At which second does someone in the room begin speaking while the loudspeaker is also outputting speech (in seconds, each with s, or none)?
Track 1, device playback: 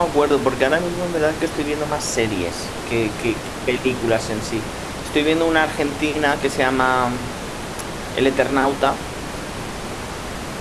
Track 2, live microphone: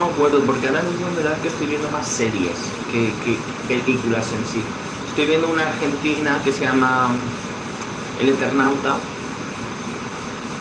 none